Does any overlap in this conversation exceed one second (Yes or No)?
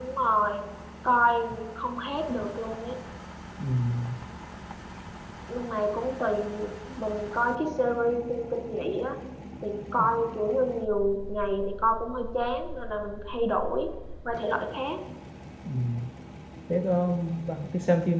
No